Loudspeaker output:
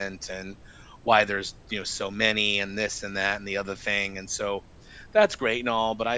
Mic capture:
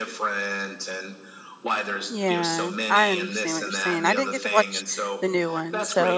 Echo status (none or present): present